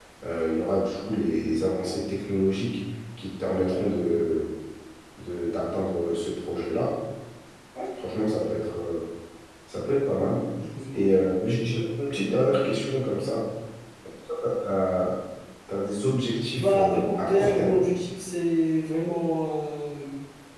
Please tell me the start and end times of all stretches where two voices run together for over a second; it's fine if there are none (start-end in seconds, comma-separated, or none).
16.6-17.9